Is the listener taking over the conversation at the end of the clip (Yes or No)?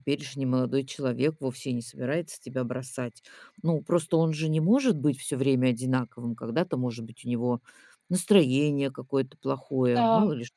No